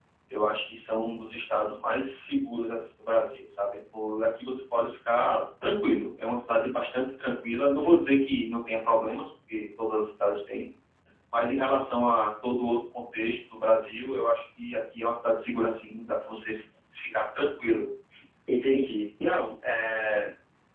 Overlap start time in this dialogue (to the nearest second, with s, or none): none